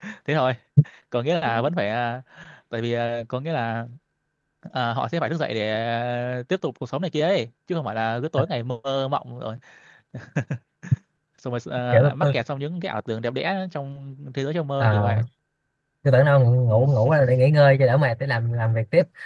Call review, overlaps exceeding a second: none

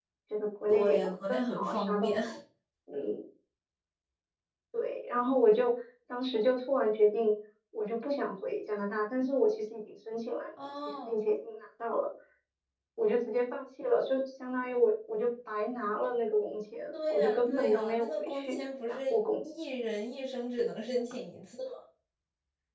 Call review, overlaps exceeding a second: present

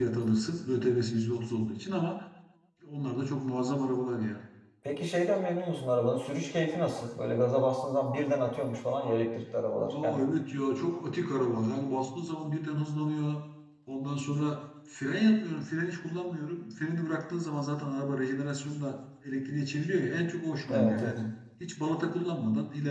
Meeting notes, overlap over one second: none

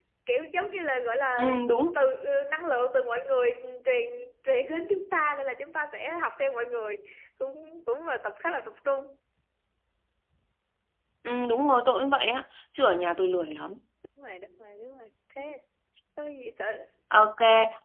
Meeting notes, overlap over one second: none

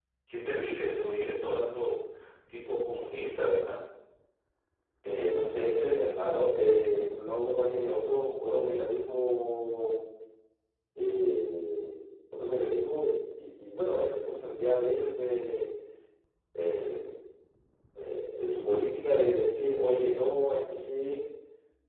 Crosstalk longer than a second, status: none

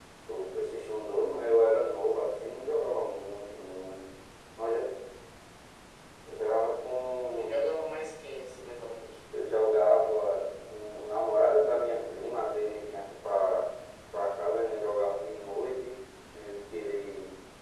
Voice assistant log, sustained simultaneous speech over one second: none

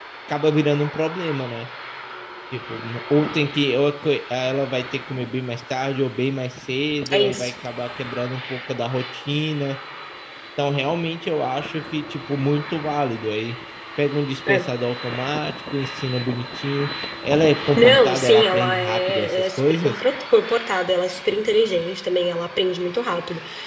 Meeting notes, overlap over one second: present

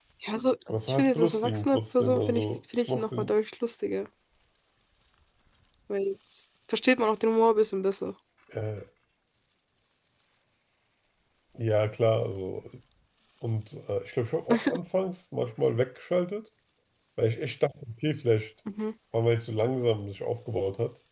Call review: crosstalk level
present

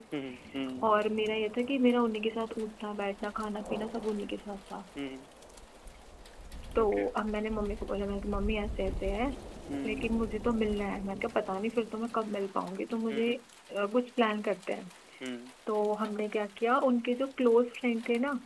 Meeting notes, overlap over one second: none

